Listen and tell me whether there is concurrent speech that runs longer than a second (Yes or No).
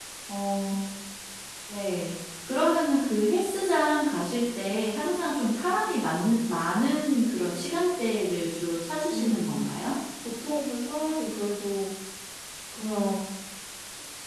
No